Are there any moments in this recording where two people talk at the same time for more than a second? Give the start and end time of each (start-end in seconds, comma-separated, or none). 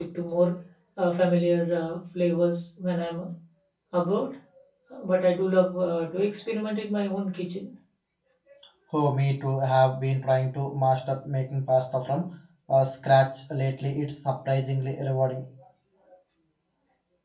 none